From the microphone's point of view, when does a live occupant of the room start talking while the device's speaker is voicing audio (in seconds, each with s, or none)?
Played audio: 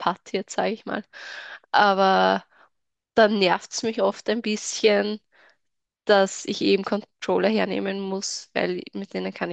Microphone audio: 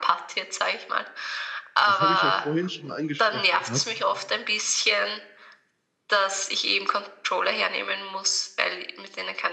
1.9 s